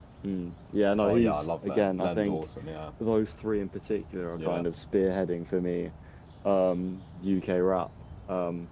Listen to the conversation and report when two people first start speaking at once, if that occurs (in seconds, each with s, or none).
1.0 s